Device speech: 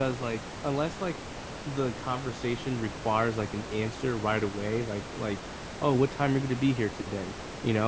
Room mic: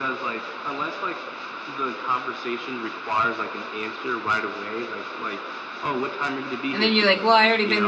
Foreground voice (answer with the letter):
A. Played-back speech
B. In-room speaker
B